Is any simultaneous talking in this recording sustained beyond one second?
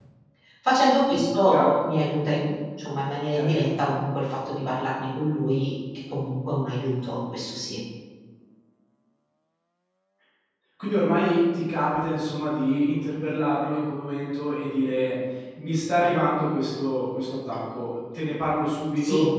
No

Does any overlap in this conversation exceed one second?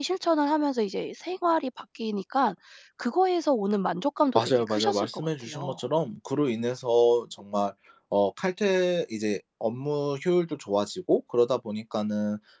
Yes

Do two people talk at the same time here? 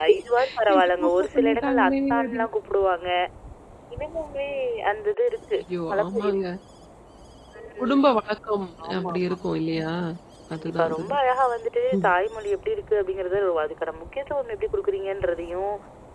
Yes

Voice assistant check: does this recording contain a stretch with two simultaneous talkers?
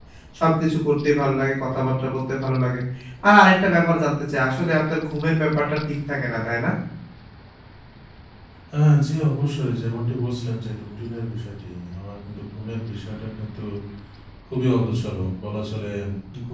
No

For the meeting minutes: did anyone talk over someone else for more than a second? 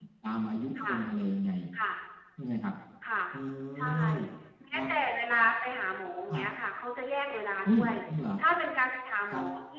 No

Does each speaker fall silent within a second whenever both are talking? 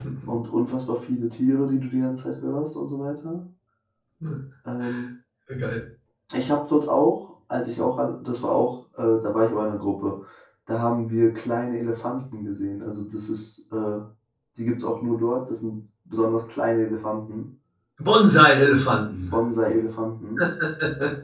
Yes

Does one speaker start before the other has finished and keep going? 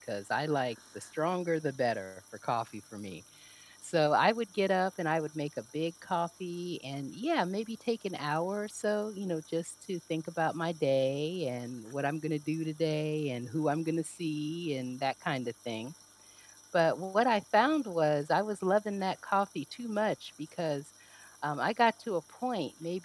No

